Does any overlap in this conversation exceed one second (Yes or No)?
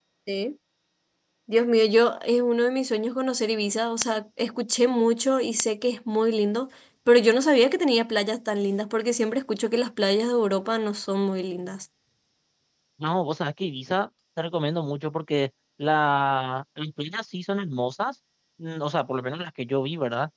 No